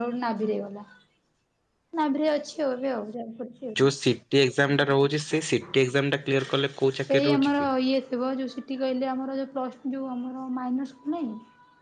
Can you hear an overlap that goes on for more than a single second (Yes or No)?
No